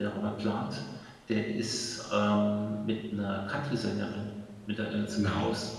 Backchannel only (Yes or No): Yes